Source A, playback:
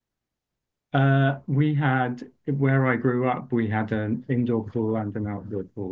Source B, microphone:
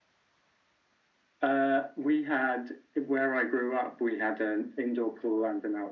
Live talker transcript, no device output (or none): none